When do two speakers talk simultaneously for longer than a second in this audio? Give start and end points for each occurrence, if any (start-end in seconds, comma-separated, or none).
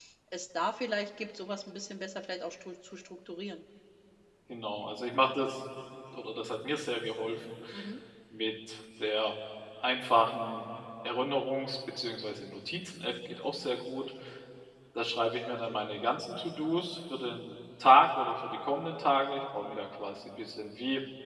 none